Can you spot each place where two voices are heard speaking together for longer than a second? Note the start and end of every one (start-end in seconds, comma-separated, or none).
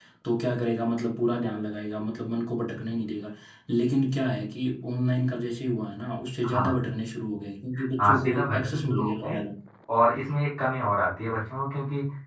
8.0-9.3